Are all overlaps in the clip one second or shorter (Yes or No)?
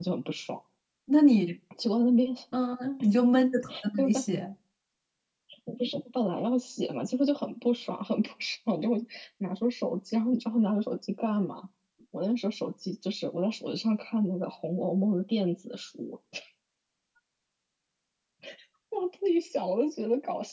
Yes